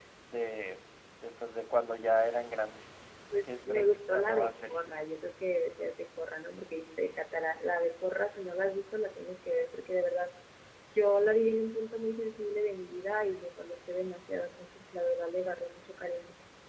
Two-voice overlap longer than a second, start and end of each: 3.4-4.8

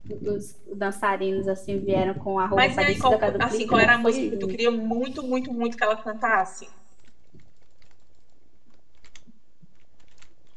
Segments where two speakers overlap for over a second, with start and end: 2.6-4.6

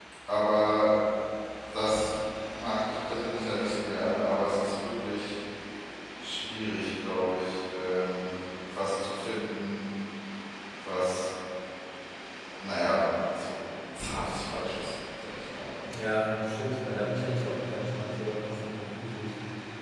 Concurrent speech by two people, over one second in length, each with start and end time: none

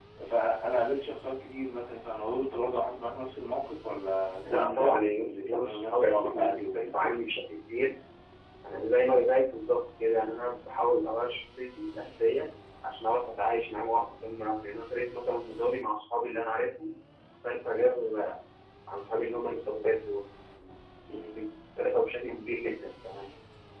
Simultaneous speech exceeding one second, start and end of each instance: 4.4-7.2

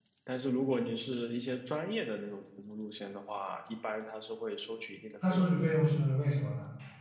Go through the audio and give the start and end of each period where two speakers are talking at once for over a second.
none

